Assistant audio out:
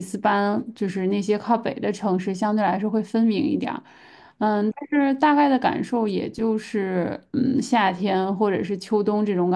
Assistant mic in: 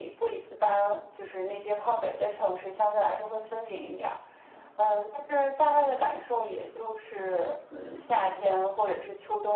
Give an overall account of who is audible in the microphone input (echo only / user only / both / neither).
echo only